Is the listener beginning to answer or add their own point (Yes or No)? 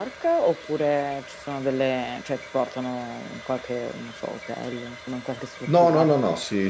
Yes